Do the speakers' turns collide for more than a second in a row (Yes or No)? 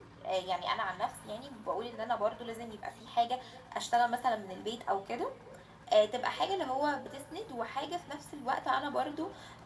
No